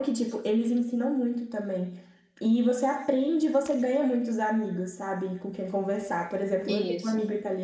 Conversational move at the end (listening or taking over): listening